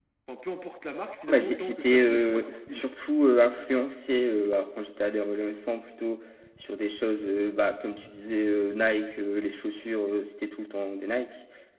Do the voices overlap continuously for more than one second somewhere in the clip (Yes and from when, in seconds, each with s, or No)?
Yes, from 1.3 s